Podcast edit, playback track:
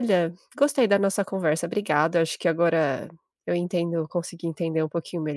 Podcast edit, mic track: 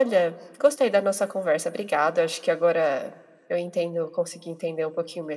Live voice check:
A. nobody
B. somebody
A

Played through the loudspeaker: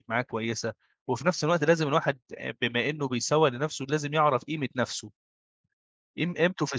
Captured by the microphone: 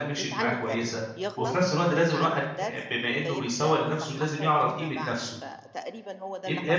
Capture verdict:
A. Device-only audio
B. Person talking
B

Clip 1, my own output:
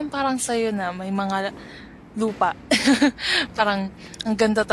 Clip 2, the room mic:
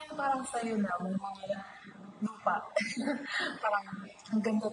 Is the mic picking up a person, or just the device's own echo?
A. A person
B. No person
B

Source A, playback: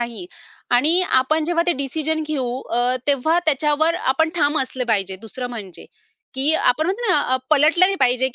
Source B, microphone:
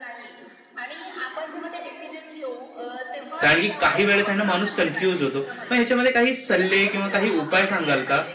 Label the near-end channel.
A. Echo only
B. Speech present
B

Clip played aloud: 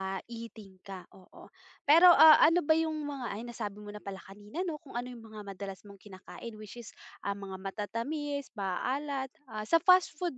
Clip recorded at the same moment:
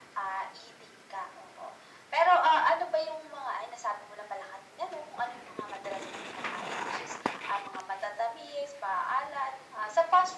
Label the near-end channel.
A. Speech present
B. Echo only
B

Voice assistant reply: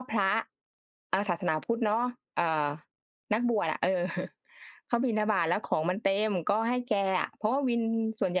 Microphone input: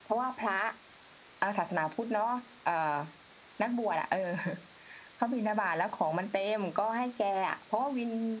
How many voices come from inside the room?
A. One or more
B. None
B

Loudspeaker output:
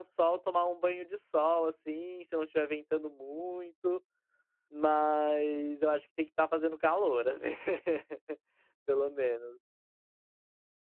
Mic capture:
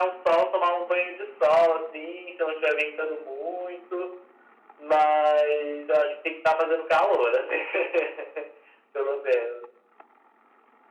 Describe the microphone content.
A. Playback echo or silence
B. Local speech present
A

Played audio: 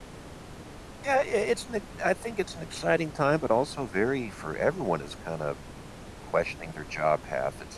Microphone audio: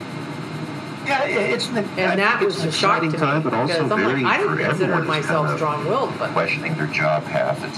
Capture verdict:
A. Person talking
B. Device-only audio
A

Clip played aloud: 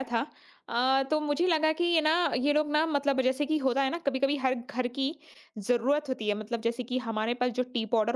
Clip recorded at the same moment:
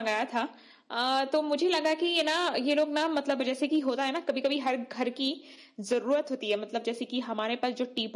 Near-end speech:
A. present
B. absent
B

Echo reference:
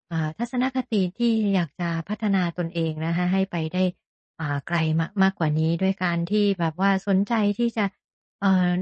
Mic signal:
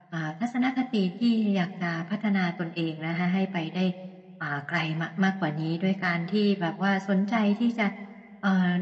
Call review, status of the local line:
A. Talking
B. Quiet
B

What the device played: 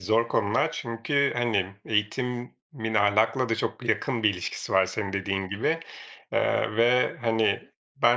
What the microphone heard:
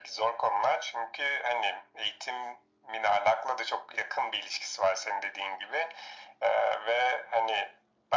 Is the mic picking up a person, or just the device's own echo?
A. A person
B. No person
B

